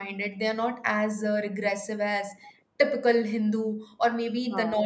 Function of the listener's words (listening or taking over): listening